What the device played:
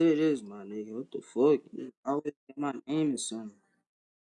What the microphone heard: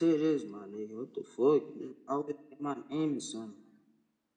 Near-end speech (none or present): none